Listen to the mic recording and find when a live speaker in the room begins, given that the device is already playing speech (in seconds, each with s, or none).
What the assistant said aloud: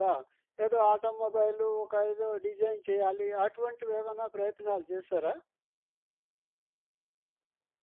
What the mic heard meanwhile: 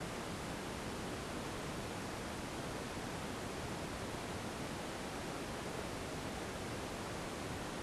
none